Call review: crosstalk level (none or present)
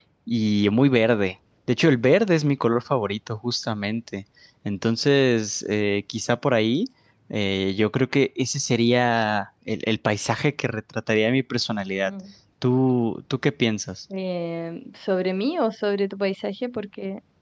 none